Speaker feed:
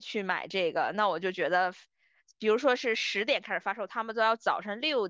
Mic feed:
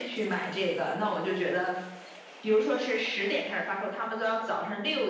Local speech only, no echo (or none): none